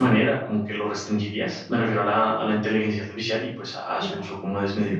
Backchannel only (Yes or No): No